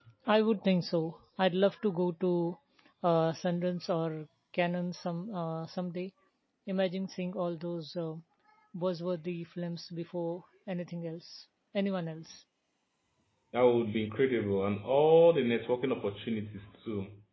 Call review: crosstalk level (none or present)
none